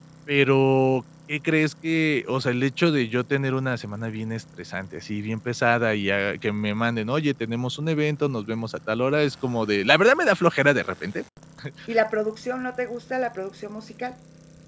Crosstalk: none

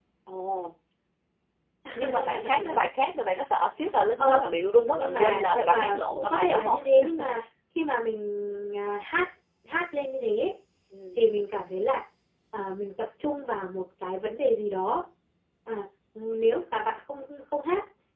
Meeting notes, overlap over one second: present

